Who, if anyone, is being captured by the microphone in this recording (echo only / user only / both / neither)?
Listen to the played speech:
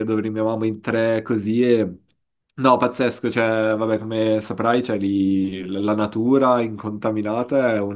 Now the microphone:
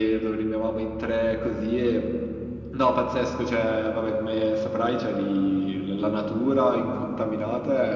echo only